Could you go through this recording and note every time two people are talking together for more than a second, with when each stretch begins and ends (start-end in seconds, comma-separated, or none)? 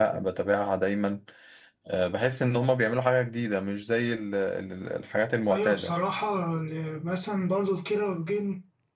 none